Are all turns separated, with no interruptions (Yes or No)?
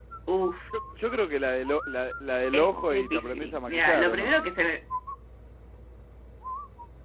No